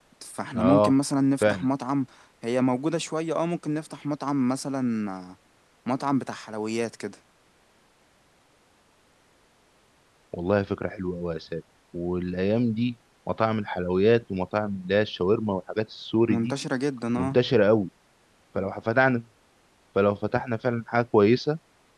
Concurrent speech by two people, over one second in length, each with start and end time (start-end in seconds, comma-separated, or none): none